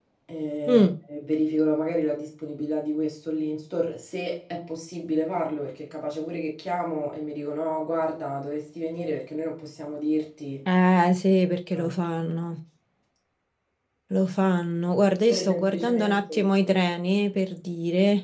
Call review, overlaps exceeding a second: present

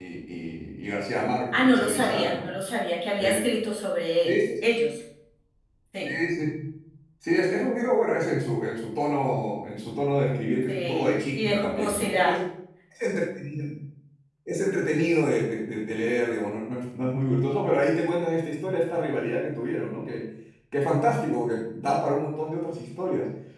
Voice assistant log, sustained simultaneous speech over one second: present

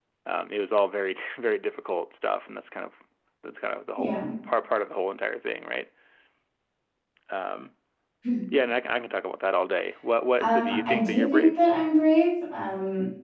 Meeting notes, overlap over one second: present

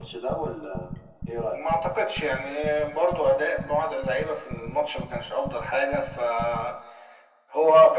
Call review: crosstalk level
none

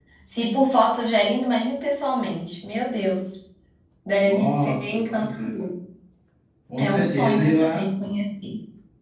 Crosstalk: present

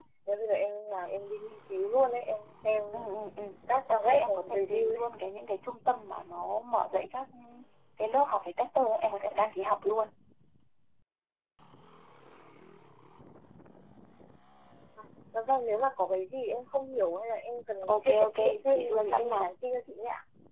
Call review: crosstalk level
present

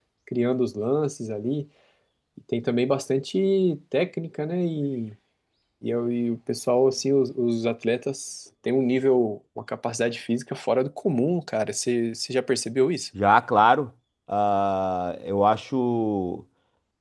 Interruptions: none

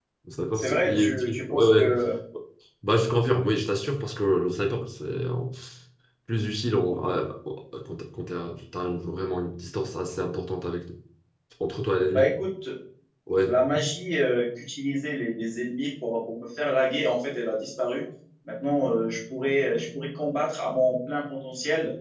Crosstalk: present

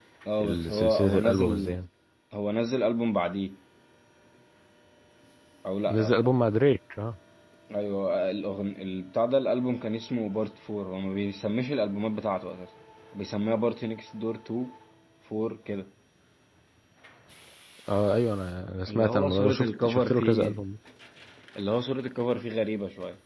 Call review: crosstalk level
present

